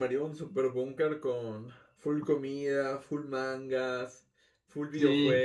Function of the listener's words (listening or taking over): taking over